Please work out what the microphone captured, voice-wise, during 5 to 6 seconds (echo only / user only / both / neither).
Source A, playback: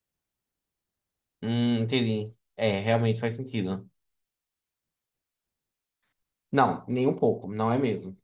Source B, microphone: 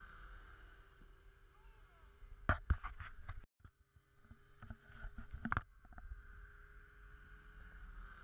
neither